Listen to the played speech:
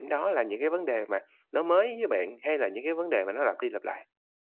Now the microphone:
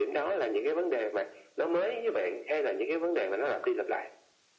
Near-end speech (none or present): none